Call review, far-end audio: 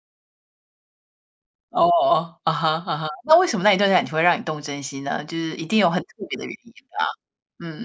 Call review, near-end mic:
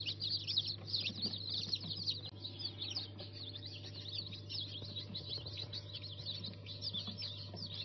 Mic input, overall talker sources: neither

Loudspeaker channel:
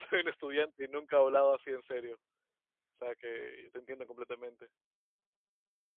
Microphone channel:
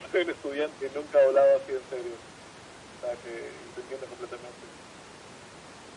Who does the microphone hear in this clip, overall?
echo only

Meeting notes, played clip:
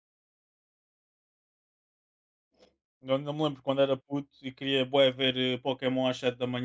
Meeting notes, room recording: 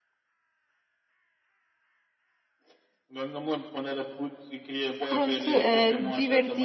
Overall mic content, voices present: both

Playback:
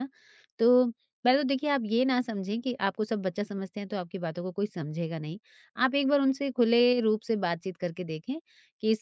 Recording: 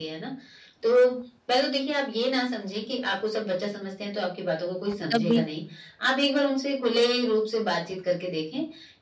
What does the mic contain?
both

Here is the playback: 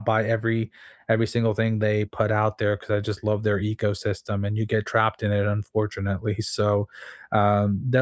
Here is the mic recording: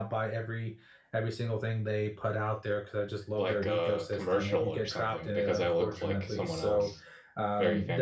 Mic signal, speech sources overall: both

